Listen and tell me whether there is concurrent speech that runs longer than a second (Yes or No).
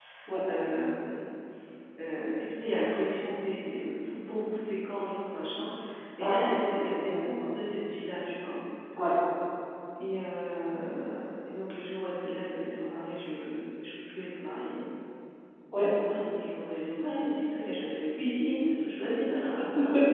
Yes